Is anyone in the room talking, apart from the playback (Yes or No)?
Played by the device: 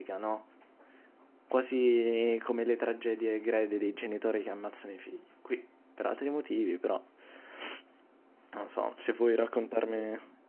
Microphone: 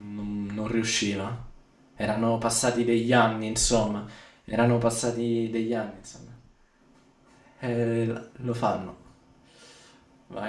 Yes